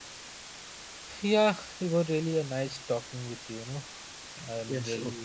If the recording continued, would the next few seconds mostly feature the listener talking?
Yes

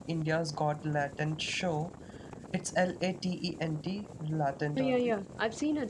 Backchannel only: No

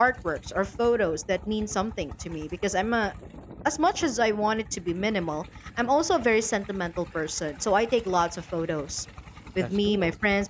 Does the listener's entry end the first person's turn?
No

